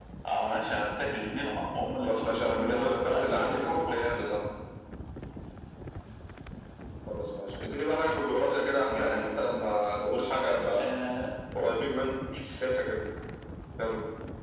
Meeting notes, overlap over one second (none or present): present